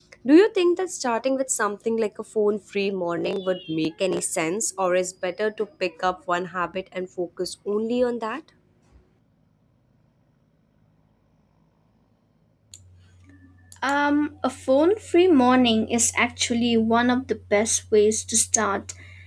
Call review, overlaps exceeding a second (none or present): none